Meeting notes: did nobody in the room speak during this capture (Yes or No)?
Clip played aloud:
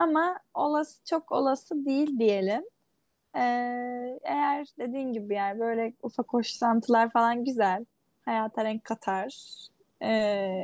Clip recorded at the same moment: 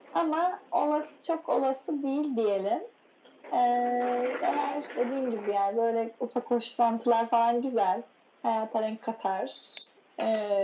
Yes